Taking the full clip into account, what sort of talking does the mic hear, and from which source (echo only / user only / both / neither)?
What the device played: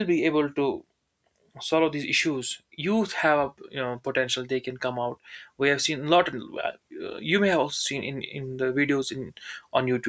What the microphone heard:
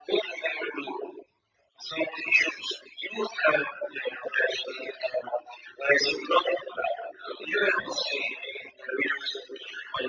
echo only